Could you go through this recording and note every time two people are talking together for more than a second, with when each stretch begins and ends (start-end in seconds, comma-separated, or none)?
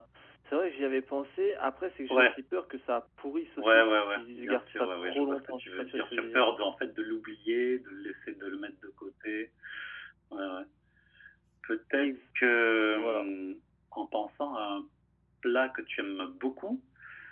3.6-6.4